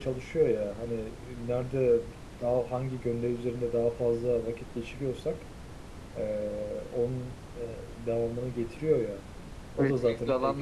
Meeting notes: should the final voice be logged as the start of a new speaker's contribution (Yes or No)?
Yes